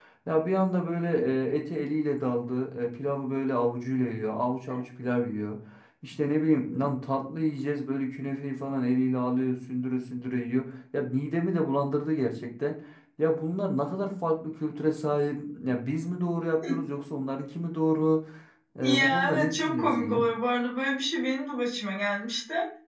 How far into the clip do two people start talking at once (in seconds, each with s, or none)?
18.8 s